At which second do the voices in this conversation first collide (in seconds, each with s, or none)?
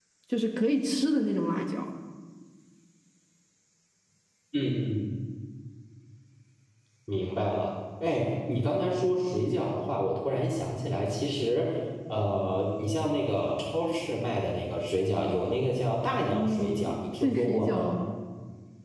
16.3 s